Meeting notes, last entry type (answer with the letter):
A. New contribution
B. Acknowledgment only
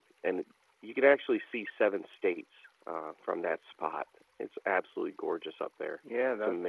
A